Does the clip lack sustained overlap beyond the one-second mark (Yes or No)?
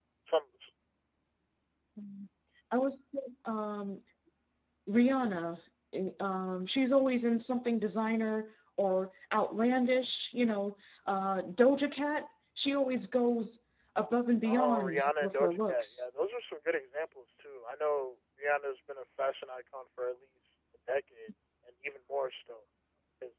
No